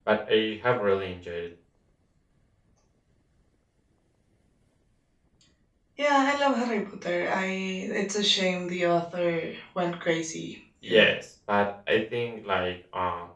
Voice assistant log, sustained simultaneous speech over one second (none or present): none